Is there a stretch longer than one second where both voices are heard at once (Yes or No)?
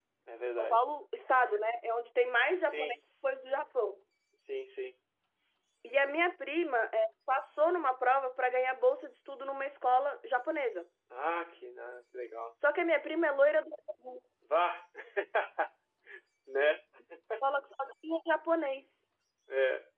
No